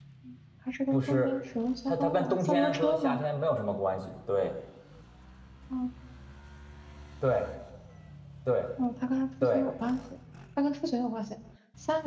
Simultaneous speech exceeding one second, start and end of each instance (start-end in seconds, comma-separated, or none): 1.9-3.2